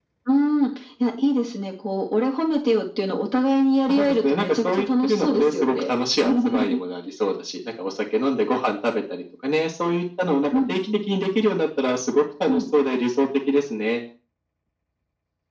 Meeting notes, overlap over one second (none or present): present